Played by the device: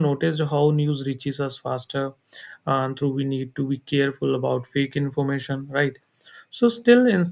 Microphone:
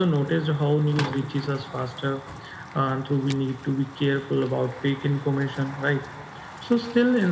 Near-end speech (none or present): none